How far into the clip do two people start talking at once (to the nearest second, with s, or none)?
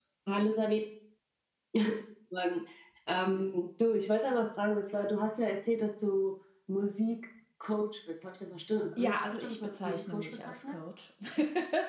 9 s